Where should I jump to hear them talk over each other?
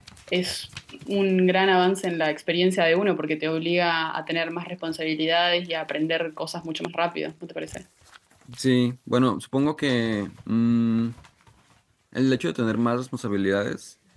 none

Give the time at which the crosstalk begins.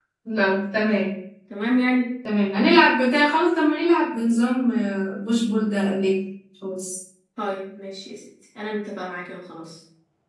none

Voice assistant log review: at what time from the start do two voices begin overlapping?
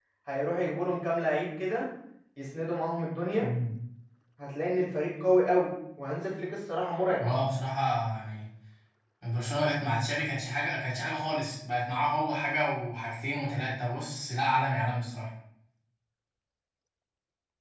none

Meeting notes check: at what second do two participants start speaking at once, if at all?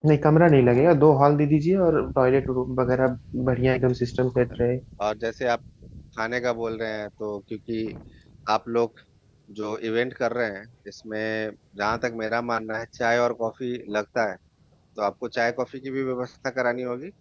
none

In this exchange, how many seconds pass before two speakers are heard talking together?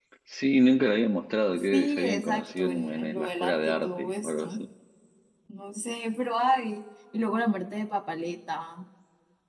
2 s

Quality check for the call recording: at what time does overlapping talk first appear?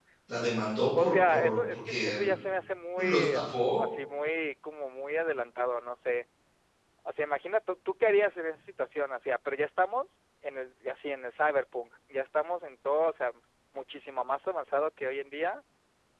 1 s

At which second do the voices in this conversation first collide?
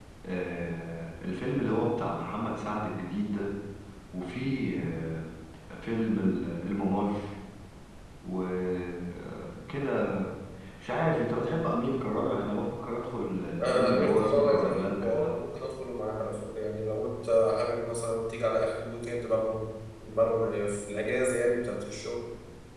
14 s

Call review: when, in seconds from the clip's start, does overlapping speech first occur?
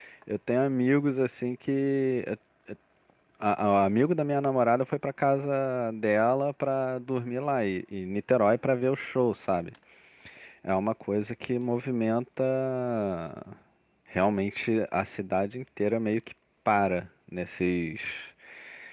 none

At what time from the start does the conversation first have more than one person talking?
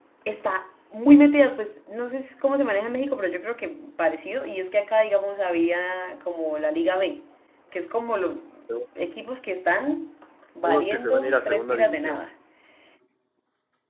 11 s

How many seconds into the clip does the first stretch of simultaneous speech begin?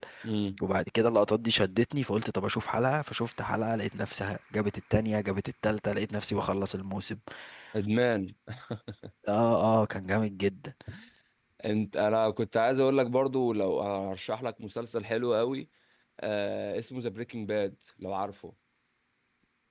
none

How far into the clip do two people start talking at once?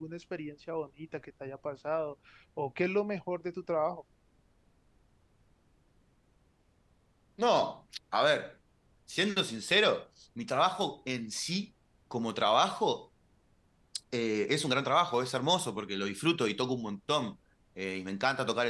none

